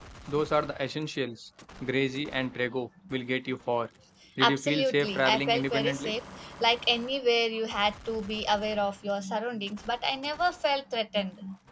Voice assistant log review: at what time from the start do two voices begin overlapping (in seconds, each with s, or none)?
4.4 s